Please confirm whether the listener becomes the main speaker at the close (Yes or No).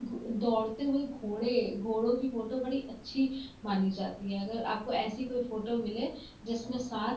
No